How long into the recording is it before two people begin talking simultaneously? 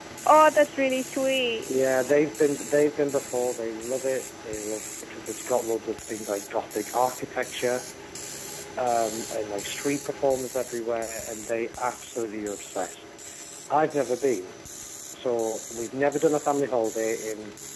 none

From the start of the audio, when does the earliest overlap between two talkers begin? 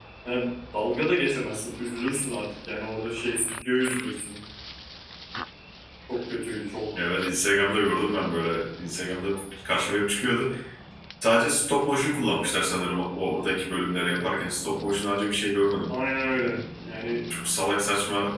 none

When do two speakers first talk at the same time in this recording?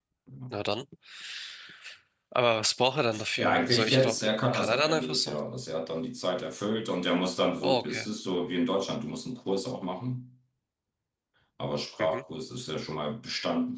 3 s

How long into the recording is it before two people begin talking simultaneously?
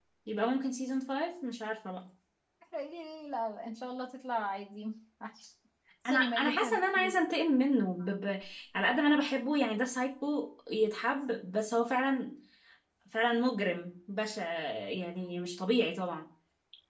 6 s

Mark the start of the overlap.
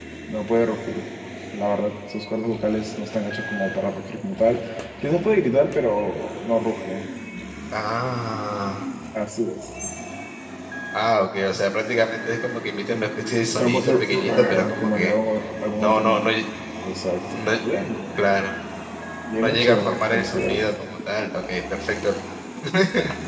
14 s

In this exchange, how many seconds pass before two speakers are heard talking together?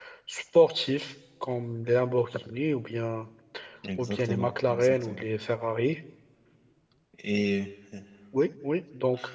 4 s

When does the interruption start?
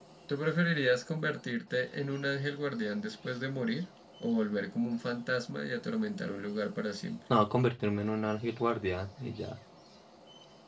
none

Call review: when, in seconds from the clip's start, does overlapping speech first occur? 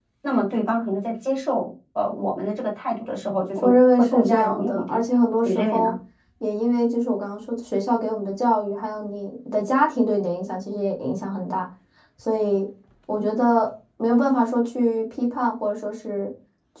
4 s

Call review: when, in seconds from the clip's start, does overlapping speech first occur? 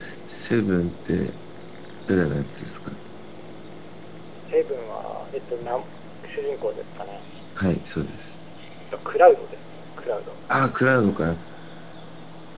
none

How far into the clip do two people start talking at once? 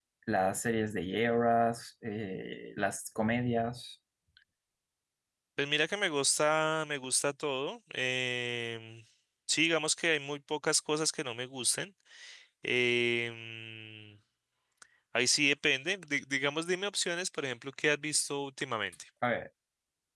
none

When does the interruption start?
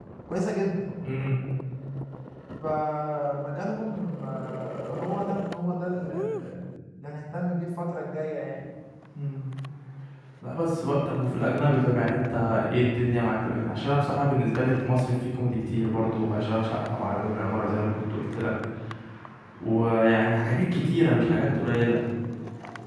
none

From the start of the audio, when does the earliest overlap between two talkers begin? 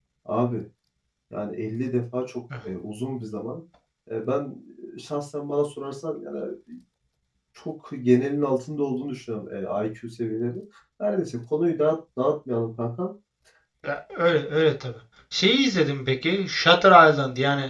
none

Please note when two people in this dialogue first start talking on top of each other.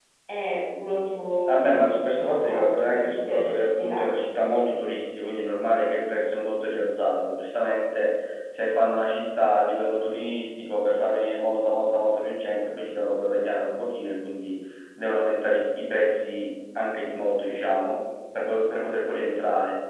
1 s

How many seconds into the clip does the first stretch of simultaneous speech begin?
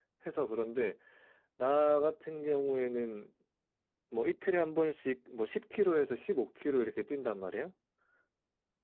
none

